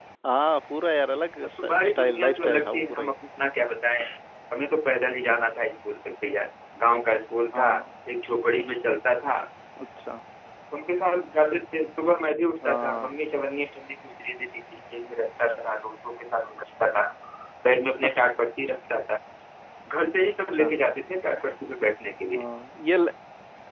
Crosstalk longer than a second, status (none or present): present